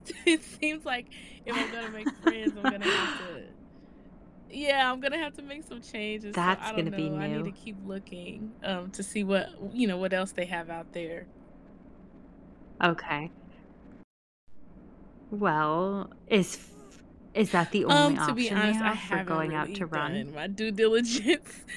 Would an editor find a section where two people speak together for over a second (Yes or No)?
Yes